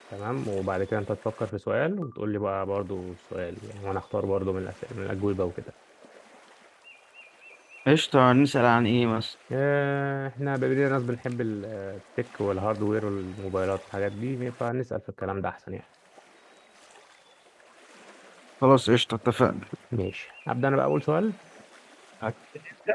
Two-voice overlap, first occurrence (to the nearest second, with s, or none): none